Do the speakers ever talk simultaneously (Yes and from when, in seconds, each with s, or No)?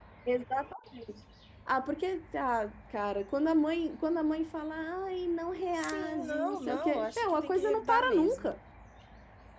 Yes, from 5.7 s